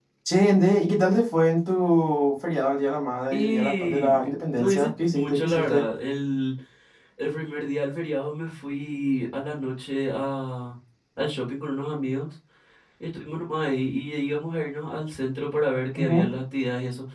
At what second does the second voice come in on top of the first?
3.3 s

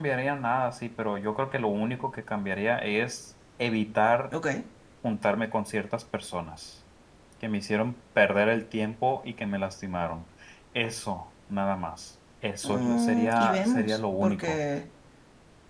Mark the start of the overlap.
12.6 s

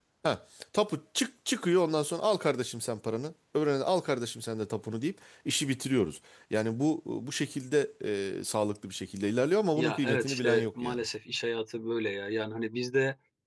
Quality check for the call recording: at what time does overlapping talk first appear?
9.8 s

